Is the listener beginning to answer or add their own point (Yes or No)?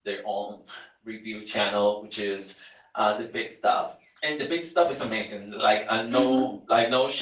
No